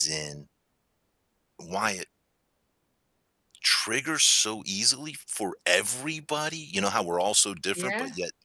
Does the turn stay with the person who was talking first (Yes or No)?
Yes